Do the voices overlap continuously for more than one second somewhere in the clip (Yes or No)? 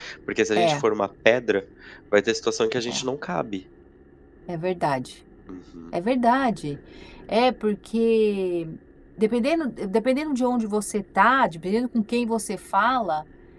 No